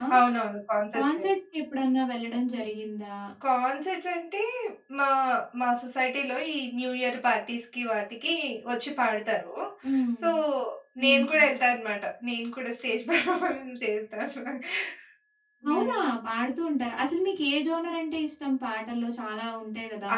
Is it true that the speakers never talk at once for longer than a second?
Yes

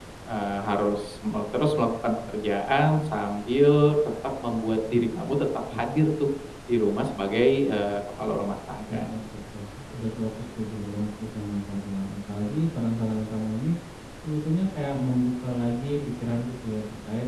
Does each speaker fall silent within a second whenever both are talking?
Yes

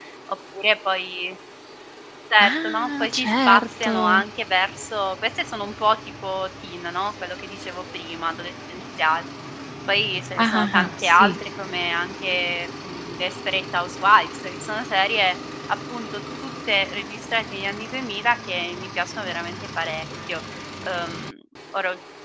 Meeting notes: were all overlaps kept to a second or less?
No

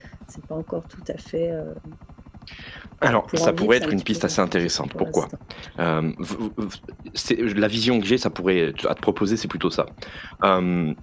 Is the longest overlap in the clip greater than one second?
Yes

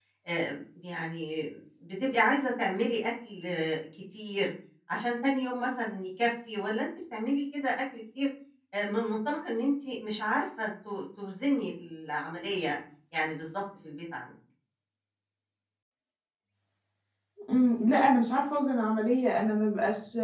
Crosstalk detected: No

